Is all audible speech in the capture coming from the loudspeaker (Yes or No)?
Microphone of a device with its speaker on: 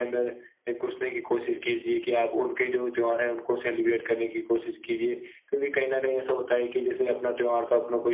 Yes